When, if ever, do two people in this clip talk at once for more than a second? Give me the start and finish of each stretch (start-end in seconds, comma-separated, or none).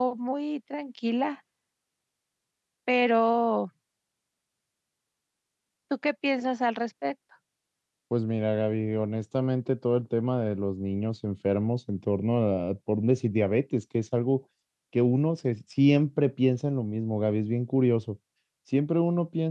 none